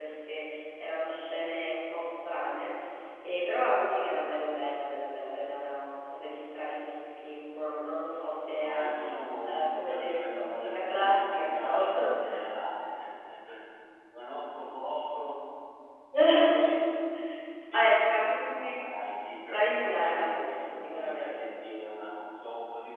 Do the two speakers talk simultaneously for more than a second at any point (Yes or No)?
Yes